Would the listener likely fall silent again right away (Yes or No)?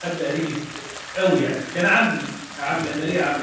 Yes